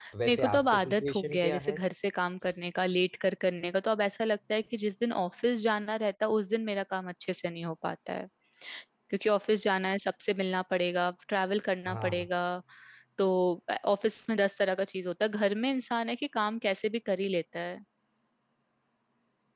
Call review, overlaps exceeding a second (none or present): present